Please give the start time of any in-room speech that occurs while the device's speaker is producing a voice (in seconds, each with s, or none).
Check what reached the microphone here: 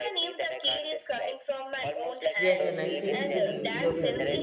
2.4 s